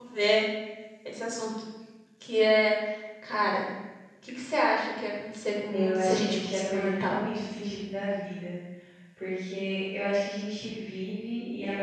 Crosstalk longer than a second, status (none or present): present